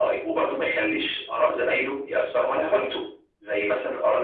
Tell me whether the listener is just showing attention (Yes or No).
No